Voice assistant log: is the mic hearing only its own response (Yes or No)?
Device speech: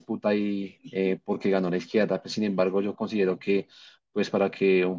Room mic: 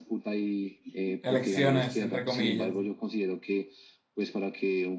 No